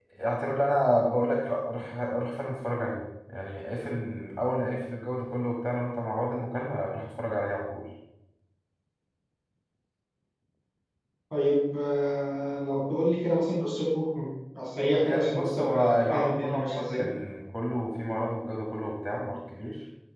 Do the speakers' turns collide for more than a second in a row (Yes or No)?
Yes